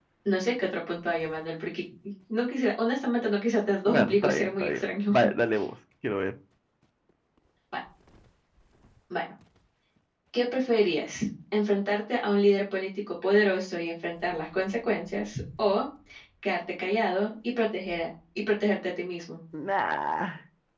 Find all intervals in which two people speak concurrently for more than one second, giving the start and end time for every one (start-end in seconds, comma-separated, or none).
3.9-5.1